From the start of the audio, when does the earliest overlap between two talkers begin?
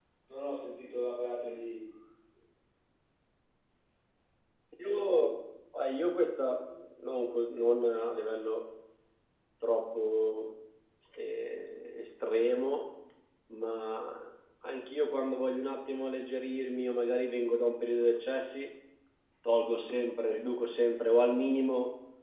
none

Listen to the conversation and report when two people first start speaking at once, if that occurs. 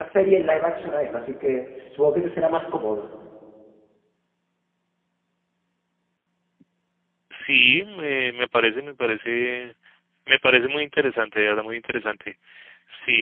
none

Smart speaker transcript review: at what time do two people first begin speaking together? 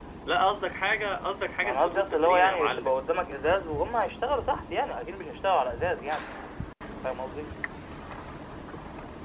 2 s

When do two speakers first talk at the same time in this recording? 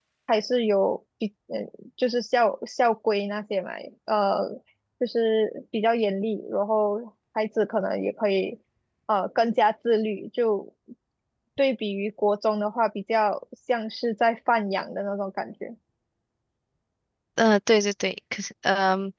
none

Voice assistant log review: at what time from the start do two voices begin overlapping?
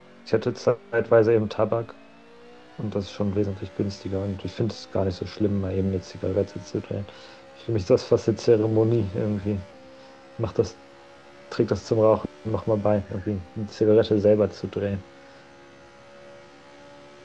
none

